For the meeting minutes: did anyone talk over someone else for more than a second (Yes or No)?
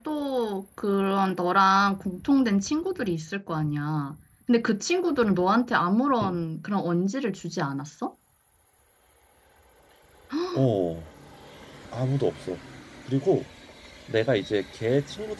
No